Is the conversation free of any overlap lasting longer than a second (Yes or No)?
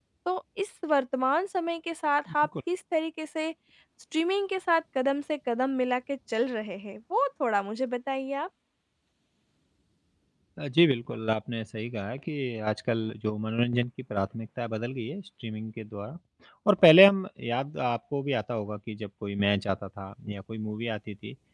Yes